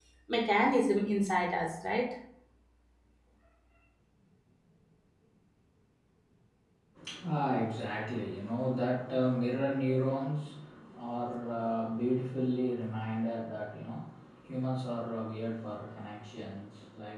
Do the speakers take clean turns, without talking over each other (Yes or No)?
Yes